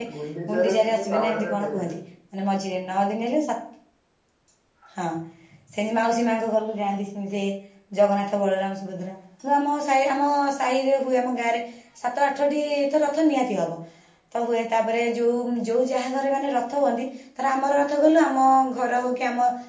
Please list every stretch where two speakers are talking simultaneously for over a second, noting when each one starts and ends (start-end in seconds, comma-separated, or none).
0.5-1.9